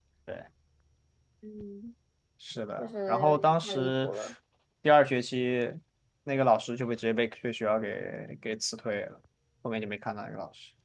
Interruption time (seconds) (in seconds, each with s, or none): 2.8 s